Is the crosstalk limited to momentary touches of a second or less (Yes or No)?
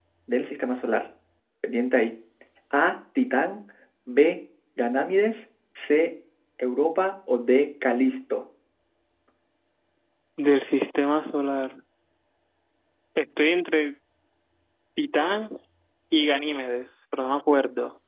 Yes